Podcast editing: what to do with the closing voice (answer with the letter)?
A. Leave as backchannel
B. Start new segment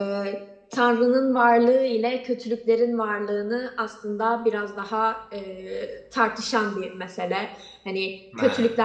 A